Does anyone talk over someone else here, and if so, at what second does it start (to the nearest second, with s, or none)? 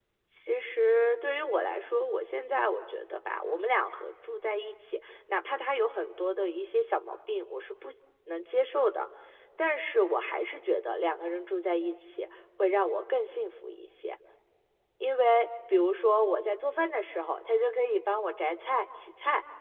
none